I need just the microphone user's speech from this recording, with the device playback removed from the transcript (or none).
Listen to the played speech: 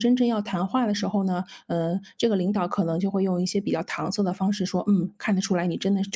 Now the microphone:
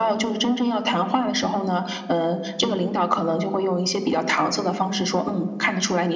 嗯